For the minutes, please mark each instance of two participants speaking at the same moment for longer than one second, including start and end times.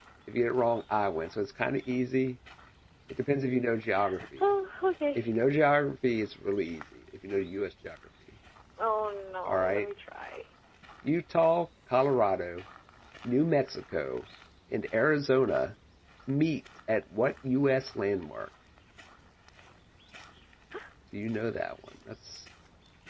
none

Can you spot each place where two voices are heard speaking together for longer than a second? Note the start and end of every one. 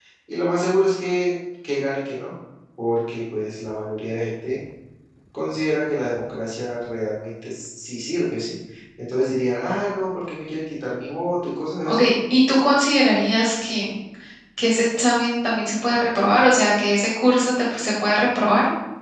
none

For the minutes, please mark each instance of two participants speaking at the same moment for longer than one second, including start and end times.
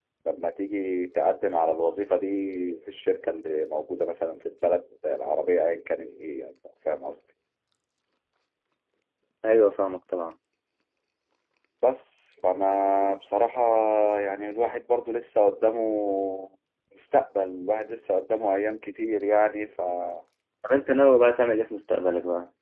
none

